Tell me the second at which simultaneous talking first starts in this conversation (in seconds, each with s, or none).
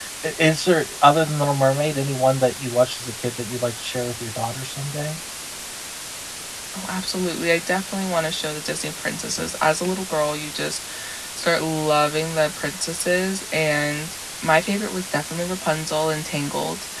none